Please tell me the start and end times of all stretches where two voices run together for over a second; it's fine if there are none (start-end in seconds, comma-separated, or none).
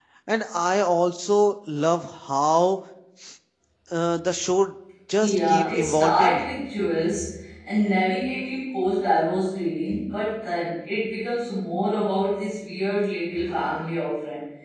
5.2-6.5